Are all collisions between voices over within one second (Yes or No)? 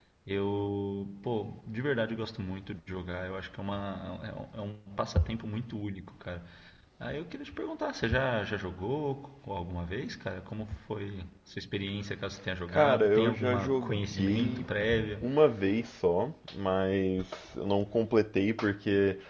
No